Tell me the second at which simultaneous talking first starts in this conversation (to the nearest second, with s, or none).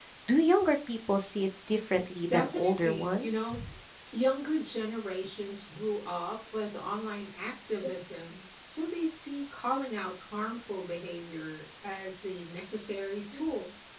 2 s